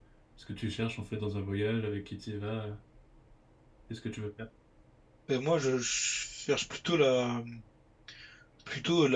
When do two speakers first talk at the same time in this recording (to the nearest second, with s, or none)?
none